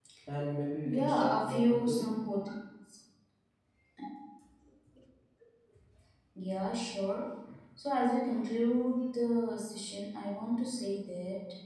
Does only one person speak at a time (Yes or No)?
No